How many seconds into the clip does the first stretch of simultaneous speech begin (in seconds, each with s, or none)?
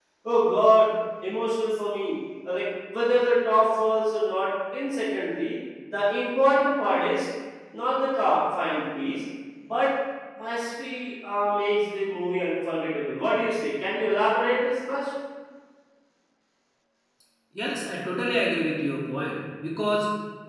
none